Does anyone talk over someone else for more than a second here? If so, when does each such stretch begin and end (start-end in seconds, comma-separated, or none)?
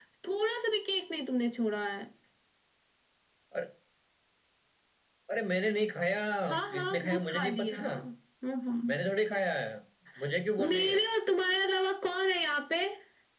6.7-7.9